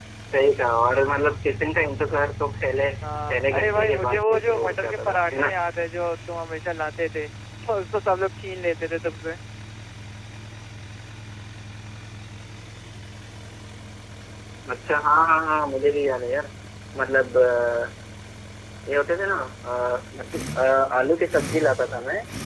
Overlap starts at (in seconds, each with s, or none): 3.3 s